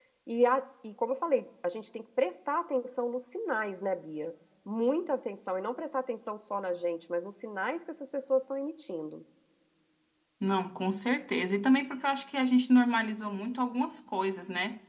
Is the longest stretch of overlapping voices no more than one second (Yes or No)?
Yes